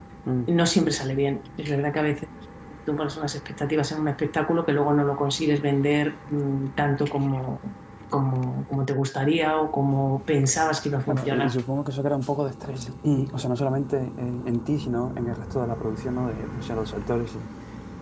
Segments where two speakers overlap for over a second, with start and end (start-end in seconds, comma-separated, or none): none